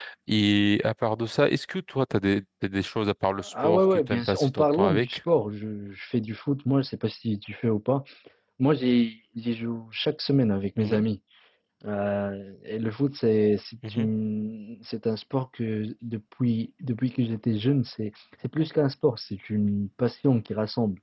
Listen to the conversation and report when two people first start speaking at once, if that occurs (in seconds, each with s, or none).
3.5 s